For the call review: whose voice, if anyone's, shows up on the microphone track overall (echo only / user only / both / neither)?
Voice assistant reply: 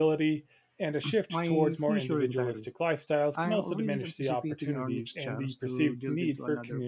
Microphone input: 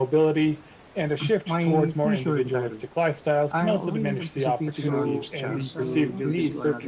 both